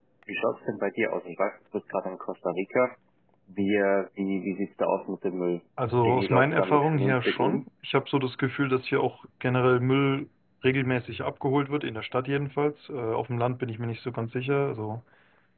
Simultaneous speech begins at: 6 s

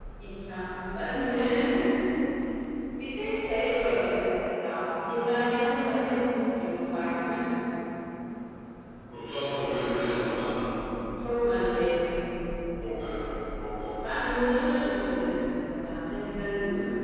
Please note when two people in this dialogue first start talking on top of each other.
none

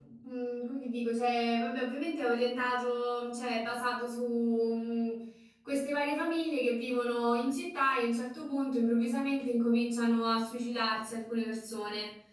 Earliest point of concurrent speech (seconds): none

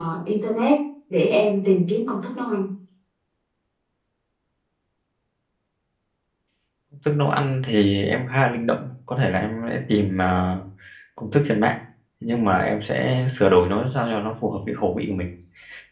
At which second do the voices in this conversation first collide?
none

